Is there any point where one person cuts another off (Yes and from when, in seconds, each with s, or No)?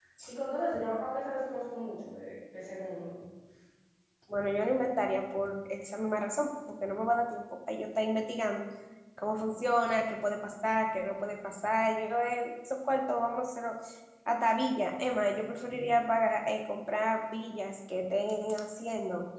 No